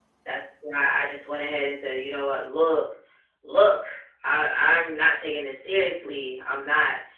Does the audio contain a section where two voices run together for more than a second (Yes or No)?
No